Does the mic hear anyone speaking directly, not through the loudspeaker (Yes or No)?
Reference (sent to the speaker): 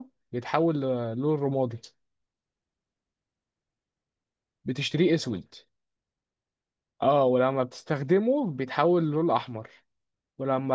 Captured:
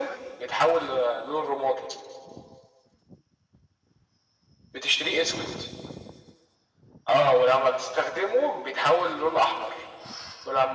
No